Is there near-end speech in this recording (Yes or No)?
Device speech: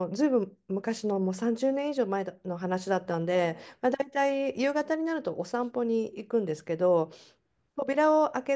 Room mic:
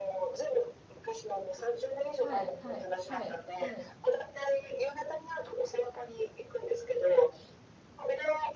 Yes